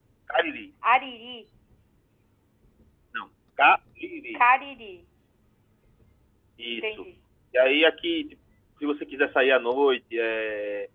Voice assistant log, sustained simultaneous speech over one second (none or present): none